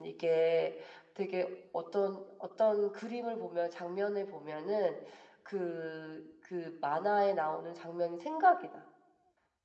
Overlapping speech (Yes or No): No